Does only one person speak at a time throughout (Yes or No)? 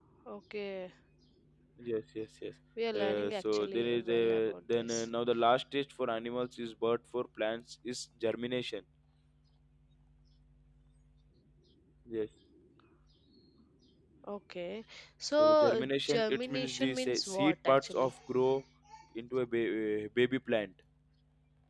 No